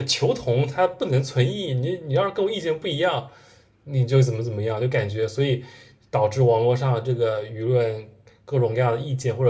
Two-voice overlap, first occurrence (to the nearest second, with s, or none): none